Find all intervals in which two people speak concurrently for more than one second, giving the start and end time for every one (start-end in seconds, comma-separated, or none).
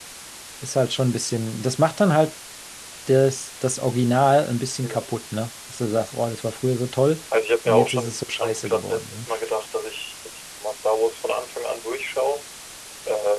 7.7-9.2